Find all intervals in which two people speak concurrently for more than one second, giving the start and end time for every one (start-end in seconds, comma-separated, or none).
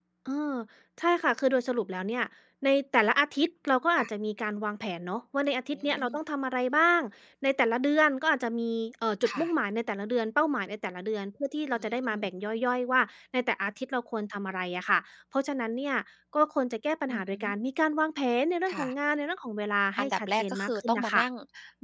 20.0-21.2